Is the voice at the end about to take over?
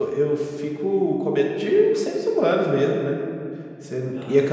No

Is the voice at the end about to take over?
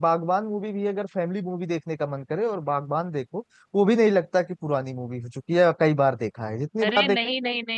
Yes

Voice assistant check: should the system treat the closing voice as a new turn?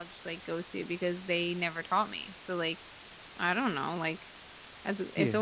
No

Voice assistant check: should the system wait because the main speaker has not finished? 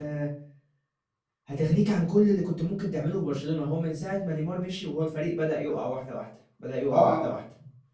Yes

